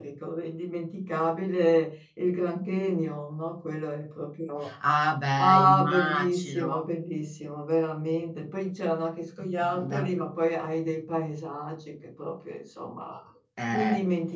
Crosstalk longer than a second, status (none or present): present